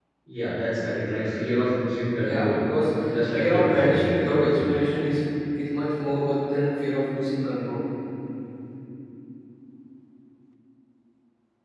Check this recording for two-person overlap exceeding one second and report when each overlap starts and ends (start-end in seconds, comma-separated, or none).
3.3-4.6